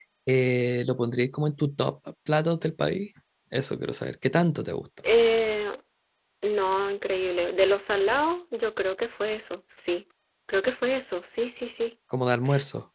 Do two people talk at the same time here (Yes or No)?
No